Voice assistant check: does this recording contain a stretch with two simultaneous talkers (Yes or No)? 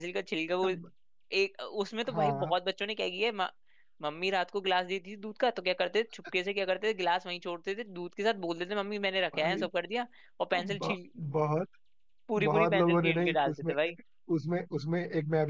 Yes